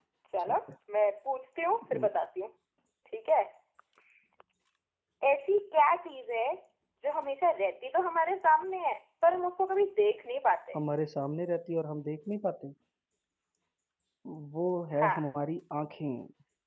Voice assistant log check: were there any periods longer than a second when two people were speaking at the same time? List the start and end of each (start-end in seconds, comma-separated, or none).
none